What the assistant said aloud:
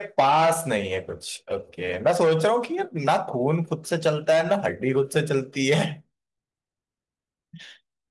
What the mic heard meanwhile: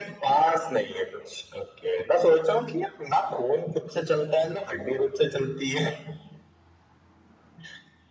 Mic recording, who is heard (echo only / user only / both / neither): echo only